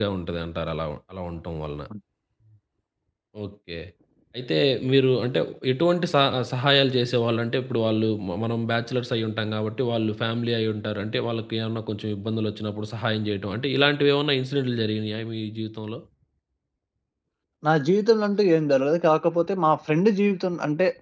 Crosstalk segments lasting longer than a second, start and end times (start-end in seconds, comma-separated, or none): none